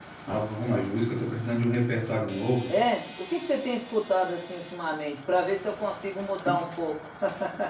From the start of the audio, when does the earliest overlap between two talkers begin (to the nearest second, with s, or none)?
none